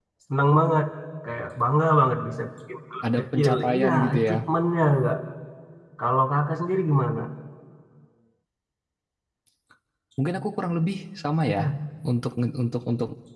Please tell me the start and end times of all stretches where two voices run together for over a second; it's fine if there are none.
3.0-4.4

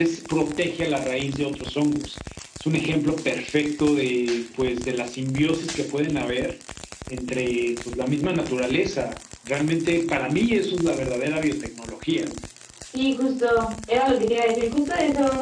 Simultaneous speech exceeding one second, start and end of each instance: none

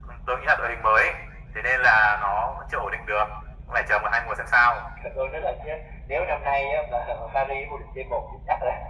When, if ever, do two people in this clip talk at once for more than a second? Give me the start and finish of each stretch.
none

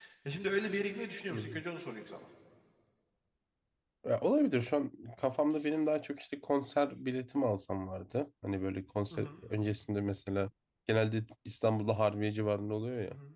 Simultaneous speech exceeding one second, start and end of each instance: none

